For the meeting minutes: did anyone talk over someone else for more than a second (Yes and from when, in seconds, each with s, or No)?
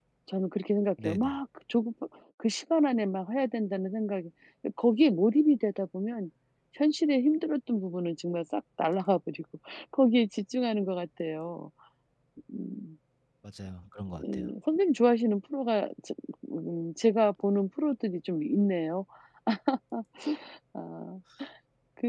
No